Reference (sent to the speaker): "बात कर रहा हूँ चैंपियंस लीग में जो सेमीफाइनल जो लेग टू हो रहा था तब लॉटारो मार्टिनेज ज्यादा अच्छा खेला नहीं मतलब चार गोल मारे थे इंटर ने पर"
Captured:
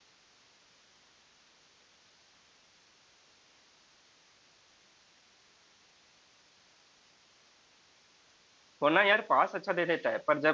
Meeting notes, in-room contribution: present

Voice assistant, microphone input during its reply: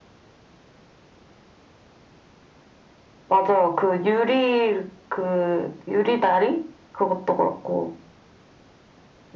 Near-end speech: none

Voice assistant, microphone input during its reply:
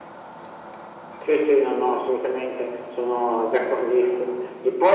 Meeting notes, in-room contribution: none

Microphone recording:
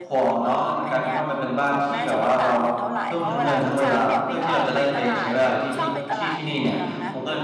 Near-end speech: present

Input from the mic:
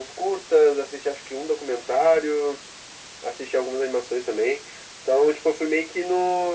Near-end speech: none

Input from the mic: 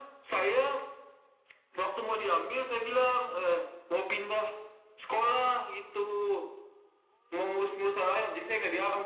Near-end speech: none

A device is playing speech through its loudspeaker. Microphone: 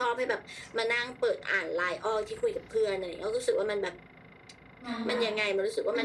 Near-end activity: present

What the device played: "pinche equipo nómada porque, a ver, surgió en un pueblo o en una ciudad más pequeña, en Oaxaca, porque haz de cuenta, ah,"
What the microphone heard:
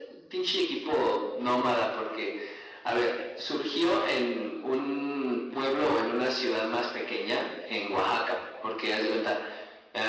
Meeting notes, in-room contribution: none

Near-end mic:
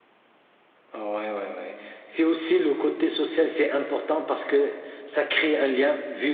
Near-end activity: none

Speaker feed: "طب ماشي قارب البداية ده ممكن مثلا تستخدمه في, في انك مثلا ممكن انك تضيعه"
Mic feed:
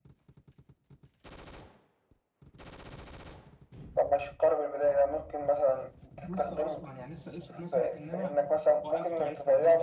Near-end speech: present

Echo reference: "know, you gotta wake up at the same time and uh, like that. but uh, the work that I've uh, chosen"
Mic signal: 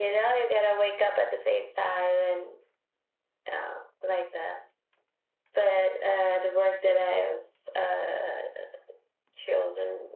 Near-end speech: none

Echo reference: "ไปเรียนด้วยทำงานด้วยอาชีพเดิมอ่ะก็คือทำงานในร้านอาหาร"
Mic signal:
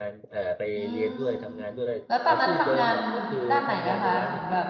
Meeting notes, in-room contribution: present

